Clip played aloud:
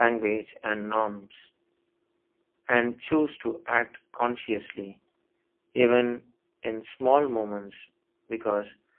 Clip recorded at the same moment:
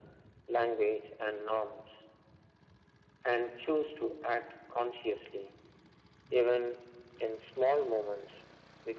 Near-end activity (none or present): none